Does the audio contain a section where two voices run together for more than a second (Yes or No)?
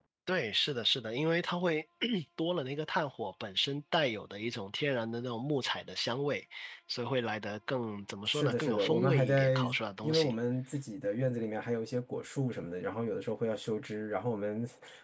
Yes